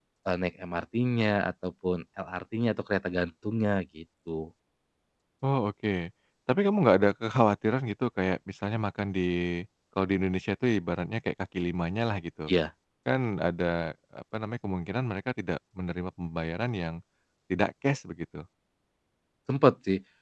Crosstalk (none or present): none